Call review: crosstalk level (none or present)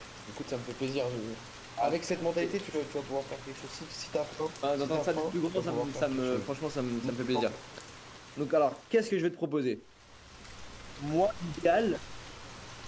present